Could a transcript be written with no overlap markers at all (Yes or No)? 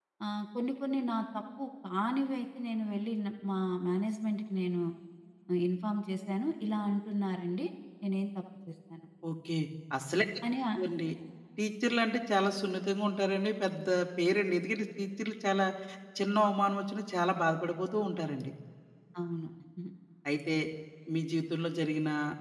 Yes